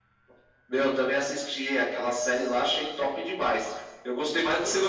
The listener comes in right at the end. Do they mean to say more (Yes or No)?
No